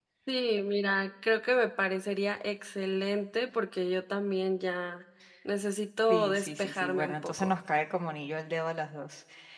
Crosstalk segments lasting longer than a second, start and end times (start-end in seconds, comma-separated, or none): 6.1-7.6